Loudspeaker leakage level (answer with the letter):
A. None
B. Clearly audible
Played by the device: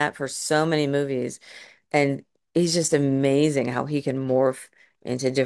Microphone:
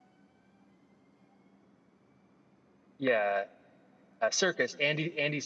A